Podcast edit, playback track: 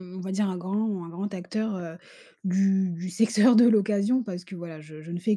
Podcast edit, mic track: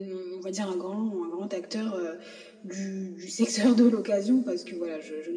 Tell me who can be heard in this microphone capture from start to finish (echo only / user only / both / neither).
echo only